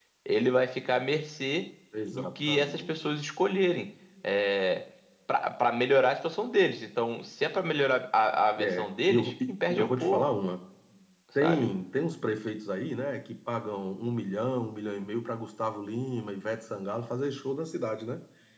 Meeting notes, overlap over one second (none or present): present